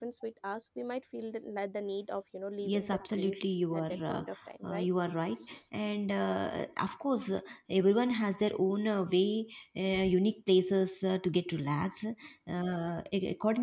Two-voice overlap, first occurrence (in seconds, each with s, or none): 2.6 s